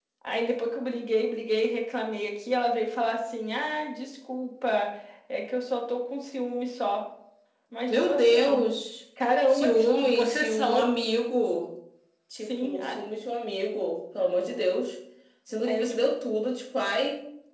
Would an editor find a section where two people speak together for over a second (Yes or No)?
Yes